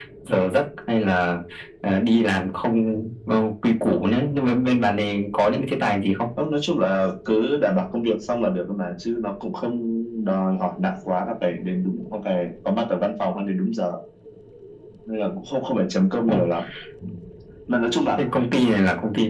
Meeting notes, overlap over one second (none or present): none